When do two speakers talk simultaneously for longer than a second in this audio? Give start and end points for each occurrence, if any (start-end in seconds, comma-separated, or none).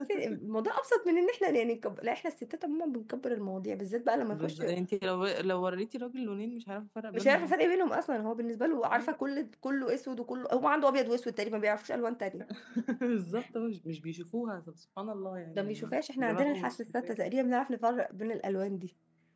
15.5-17.1